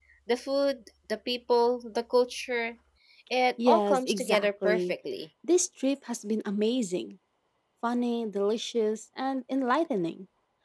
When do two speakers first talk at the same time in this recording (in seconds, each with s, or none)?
3.7 s